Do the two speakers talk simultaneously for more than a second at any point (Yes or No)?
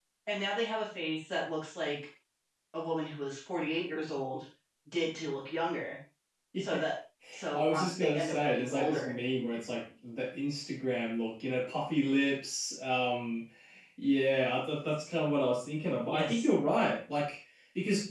Yes